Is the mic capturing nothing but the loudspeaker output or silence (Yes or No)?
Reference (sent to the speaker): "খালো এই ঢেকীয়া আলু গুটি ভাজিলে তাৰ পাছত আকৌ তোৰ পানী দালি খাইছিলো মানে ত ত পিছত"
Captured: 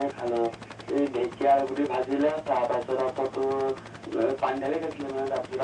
Yes